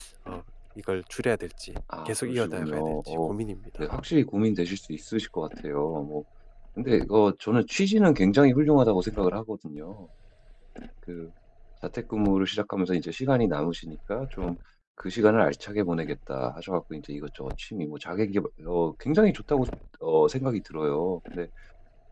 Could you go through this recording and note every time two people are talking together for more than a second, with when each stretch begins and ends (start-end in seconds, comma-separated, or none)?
2.0-3.3